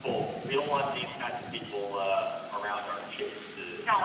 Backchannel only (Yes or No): No